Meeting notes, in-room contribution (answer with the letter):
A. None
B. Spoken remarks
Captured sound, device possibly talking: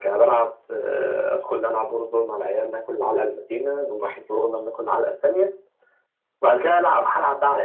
A